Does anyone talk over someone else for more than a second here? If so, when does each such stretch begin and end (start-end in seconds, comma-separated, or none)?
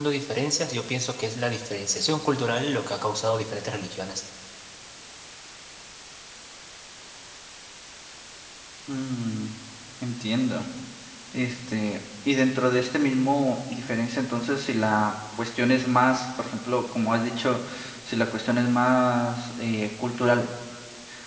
none